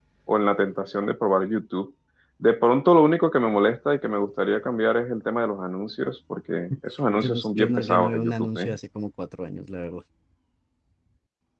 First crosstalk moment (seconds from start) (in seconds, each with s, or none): 7.2 s